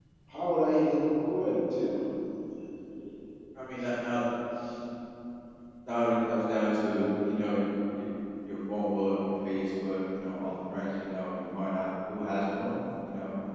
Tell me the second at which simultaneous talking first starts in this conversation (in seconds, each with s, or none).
none